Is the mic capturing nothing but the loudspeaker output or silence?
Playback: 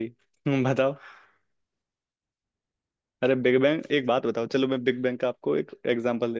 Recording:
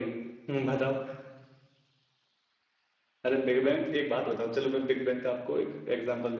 Yes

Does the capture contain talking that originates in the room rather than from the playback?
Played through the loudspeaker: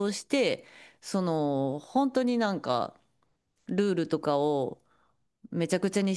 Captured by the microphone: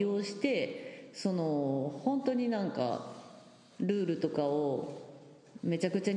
No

